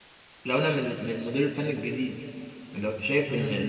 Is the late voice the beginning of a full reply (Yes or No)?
No